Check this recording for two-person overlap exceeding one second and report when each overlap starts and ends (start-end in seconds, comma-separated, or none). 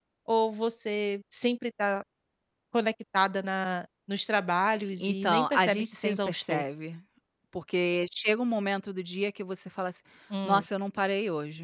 5.0-6.6